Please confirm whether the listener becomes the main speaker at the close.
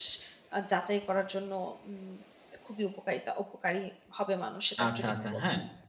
Yes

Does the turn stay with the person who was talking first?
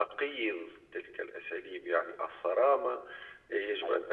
Yes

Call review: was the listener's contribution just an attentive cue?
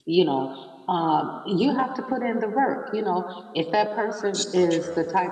Yes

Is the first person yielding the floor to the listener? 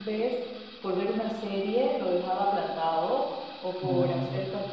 No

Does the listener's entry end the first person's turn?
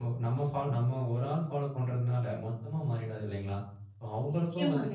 No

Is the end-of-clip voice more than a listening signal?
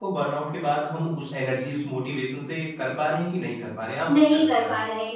Yes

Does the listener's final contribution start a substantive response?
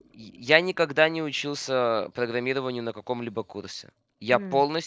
No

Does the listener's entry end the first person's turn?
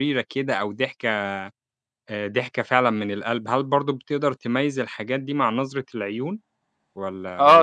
Yes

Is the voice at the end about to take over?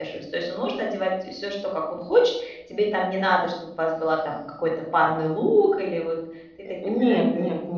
Yes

